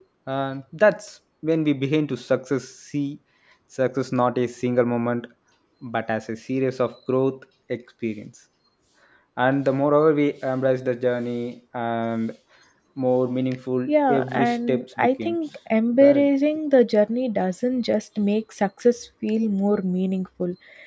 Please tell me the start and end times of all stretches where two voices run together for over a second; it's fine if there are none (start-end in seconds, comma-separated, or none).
13.9-15.3